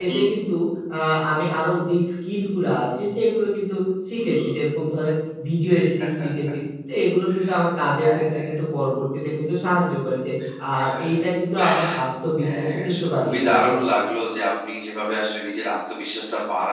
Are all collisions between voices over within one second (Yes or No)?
No